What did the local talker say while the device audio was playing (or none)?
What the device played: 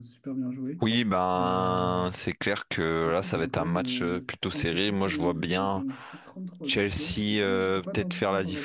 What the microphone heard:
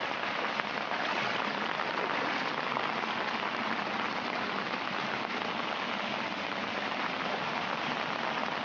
none